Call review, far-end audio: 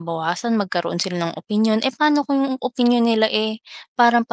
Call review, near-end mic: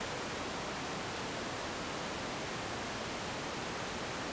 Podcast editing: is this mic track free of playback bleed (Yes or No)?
Yes